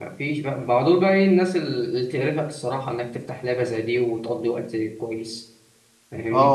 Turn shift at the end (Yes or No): Yes